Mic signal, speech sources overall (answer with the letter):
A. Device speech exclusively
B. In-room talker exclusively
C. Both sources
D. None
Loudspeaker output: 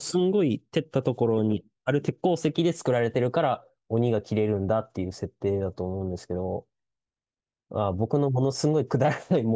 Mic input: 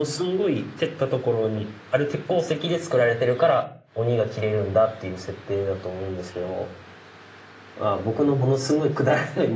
A